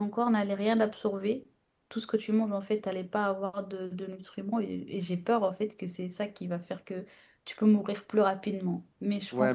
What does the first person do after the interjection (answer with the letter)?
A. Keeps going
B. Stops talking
B